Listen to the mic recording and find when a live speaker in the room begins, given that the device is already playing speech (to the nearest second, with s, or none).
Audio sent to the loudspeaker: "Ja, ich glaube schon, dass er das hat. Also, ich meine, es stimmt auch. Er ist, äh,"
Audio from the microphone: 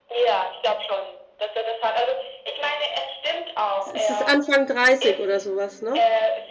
4 s